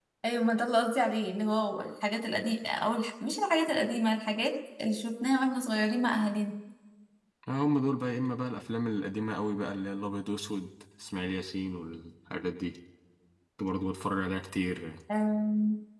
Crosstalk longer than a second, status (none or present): none